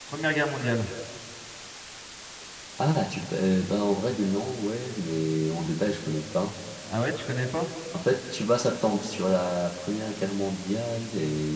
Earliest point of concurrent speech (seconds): none

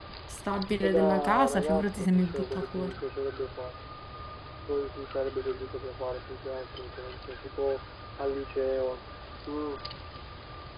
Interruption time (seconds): 0.8 s

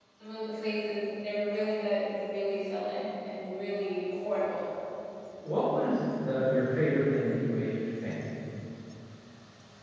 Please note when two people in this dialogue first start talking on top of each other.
none

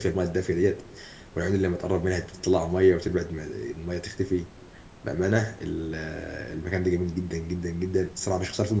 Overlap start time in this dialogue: none

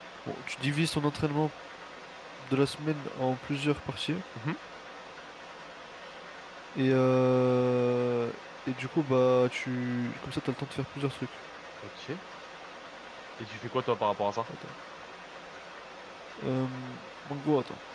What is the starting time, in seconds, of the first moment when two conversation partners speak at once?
none

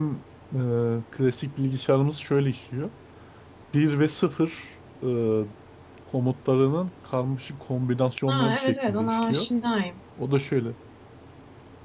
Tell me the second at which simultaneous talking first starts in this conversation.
8.3 s

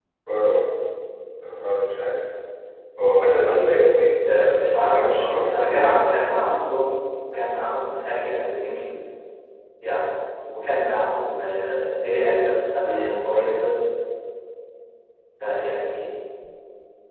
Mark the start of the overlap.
4.3 s

